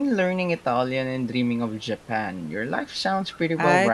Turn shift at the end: Yes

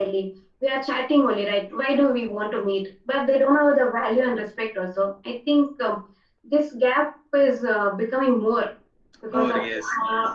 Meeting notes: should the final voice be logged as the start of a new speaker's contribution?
Yes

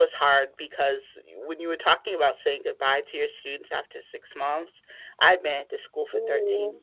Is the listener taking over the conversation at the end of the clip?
No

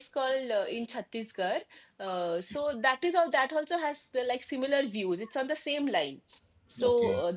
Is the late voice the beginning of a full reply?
No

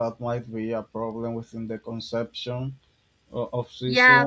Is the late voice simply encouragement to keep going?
No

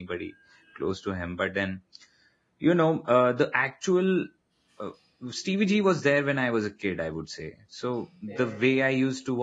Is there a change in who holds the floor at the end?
No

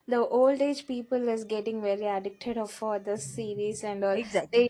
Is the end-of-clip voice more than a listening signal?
Yes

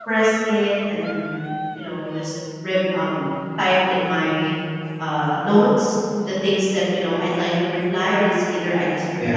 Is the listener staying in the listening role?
Yes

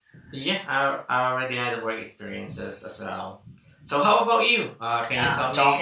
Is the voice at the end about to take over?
Yes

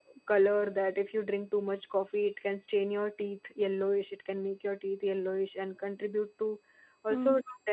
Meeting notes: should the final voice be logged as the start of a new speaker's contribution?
No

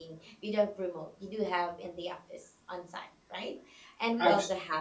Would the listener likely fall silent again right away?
Yes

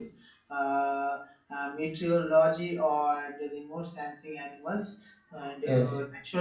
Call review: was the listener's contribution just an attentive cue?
Yes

